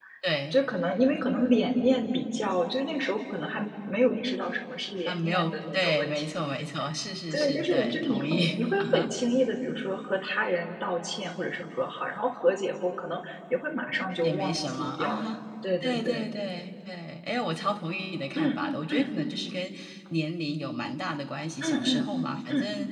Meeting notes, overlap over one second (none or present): present